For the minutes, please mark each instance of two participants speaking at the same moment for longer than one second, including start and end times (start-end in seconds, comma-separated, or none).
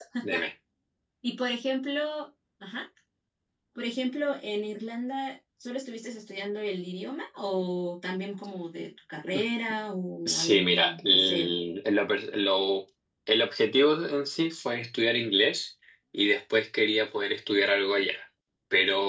10.2-11.5